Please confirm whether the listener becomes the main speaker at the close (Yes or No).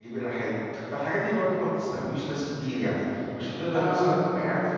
No